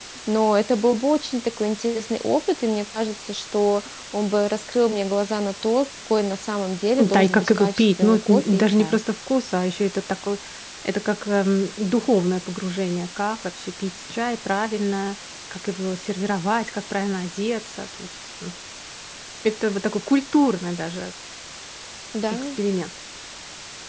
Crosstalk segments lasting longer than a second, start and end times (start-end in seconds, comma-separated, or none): 7.0-9.0